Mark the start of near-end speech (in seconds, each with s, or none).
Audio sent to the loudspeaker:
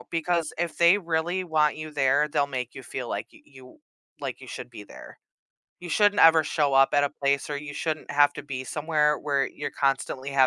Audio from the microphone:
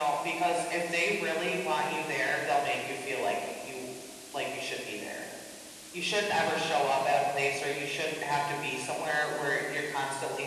none